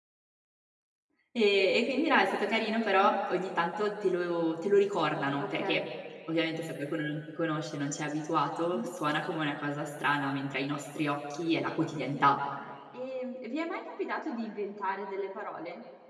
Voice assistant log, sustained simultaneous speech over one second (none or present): none